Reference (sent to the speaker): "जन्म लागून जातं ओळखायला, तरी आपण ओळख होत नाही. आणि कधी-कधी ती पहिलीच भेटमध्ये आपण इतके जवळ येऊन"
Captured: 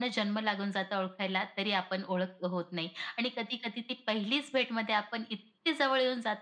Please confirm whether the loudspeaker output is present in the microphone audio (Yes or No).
Yes